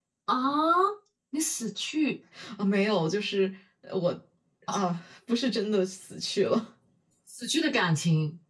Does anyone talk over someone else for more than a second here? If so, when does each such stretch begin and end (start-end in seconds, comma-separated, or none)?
none